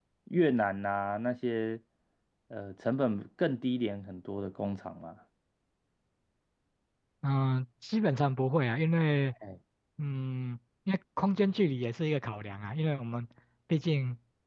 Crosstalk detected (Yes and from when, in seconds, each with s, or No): No